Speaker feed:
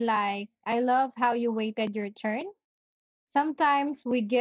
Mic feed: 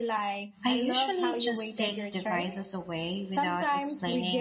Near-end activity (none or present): present